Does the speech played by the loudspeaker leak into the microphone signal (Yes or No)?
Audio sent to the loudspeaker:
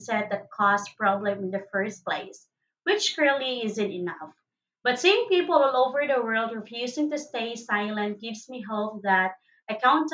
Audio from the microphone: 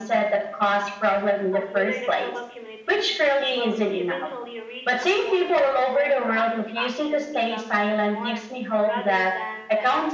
Yes